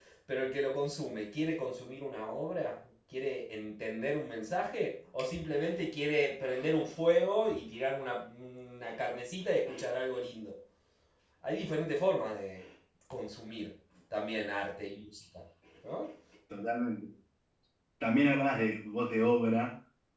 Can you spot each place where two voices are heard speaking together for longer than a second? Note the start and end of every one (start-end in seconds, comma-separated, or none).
none